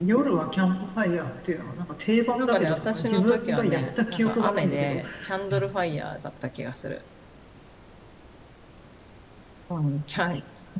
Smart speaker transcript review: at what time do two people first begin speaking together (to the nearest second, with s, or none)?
2 s